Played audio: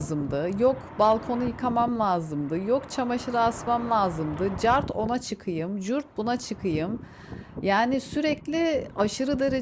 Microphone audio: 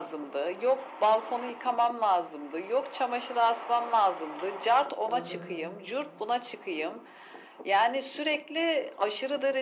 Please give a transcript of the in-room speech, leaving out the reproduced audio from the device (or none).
Tabii,